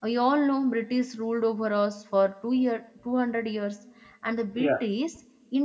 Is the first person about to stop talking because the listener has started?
No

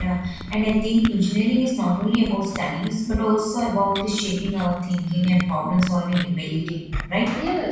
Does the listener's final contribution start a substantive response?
Yes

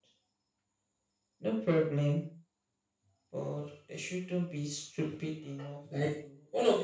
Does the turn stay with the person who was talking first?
No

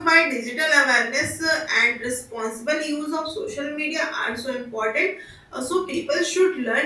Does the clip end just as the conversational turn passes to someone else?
No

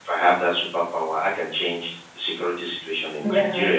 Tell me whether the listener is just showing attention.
Yes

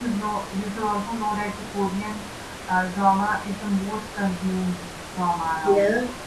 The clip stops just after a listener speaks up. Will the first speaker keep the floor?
No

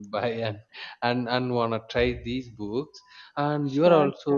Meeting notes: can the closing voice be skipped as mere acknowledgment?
Yes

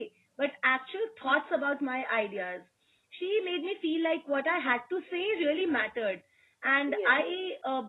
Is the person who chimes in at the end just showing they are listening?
Yes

